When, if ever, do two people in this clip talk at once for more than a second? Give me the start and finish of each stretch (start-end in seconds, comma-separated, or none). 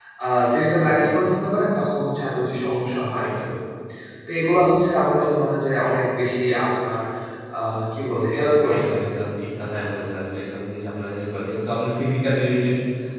none